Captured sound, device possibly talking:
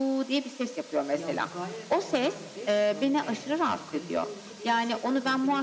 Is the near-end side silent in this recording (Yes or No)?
No